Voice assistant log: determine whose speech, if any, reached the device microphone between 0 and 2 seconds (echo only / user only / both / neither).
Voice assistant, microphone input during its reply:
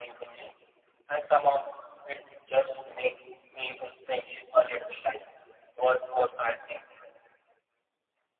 echo only